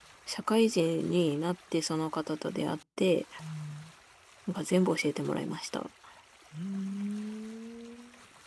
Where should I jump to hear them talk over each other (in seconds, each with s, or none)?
none